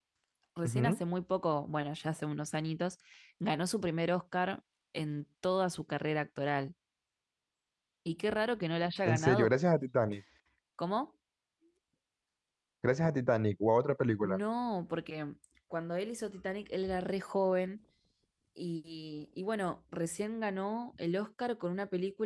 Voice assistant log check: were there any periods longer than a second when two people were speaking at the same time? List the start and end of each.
none

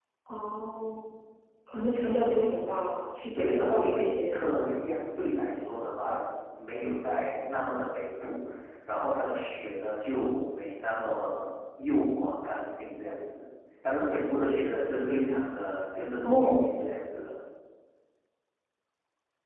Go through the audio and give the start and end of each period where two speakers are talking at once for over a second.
3.4-4.6

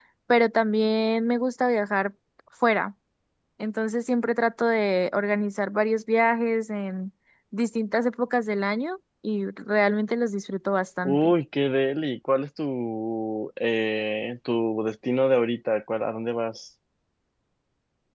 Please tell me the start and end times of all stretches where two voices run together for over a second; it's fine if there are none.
none

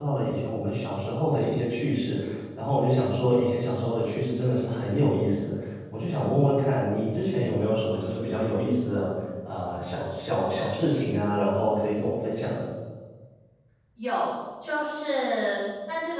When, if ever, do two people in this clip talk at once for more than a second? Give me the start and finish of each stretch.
none

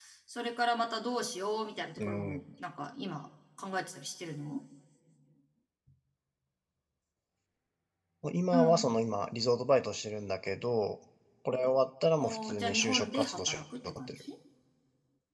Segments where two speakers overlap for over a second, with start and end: 12.2-14.2

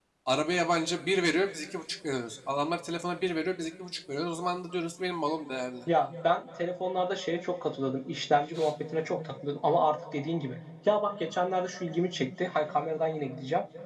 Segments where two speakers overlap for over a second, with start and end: none

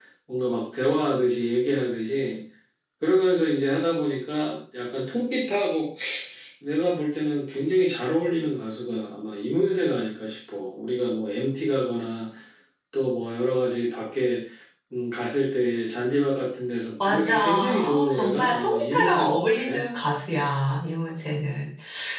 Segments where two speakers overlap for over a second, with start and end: 17.0-19.8

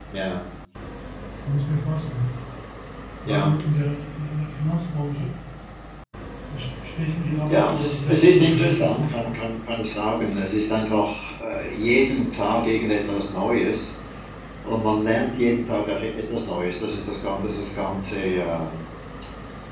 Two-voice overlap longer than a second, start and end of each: 7.5-9.3

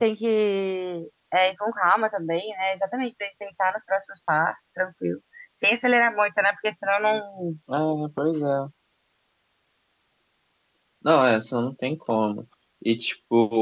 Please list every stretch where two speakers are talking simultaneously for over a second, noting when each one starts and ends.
none

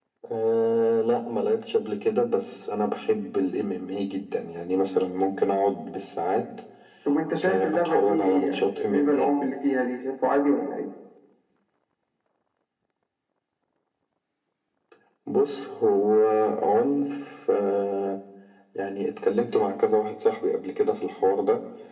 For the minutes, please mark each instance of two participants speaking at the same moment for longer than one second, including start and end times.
7.4-9.3

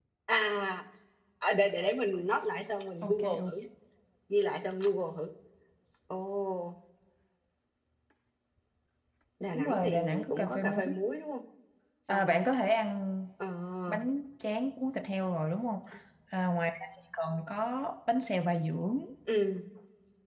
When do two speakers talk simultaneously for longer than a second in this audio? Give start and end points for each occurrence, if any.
9.5-10.8

